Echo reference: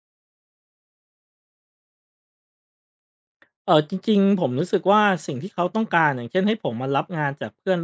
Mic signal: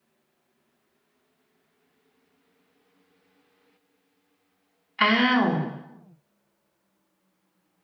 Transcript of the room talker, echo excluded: อ้าว

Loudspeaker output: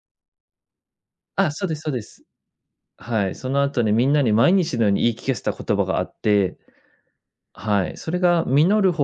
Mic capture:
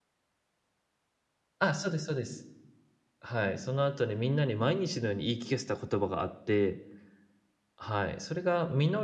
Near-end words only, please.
none

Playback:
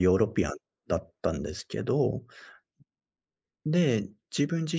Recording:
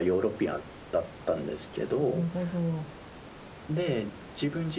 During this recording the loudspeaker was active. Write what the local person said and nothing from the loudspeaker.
え、なるほど。

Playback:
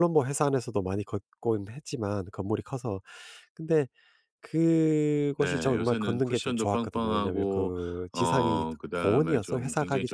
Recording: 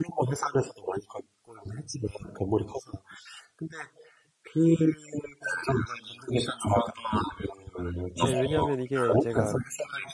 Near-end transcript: 예 왜냐하면 이게 제가

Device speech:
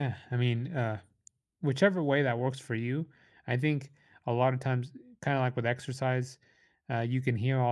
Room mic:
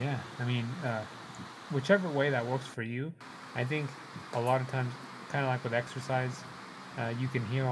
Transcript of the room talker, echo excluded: none

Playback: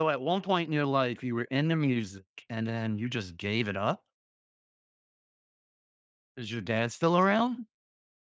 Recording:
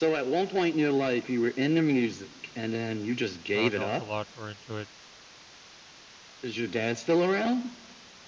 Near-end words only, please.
I hung out with a lot were into it,

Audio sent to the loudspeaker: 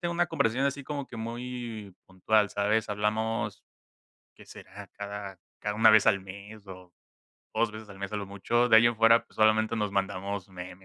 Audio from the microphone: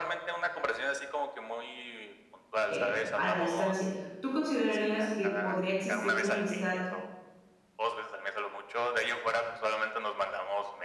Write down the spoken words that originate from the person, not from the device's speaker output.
eh, a la distancia. ¿Tú considerarías que podría existir una amistad

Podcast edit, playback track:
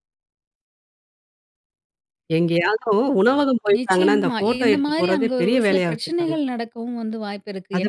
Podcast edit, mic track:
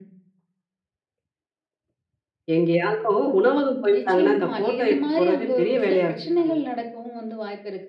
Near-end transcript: none

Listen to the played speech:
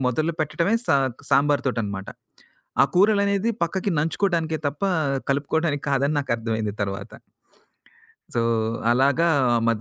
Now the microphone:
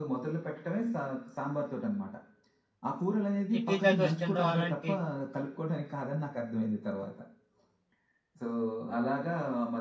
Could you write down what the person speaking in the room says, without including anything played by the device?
ఈ పిజ్జా, దోస తినడం అలాంటివి

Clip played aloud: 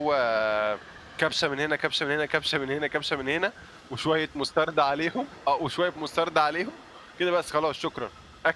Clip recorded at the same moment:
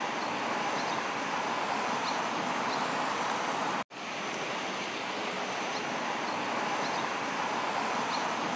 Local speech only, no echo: none

